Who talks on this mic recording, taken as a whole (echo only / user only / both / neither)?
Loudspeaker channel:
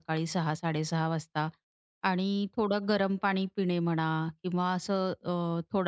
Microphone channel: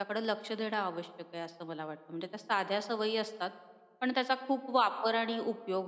user only